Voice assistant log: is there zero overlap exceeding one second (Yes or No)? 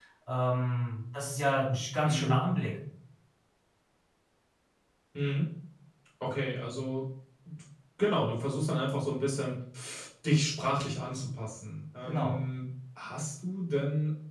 Yes